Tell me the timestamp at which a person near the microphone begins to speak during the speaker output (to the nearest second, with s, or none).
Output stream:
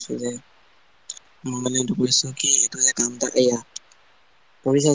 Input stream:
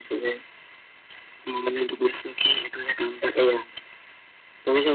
none